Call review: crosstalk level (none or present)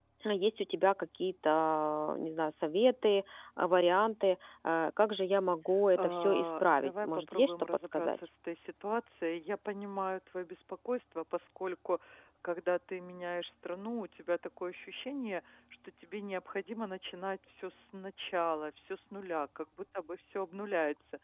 present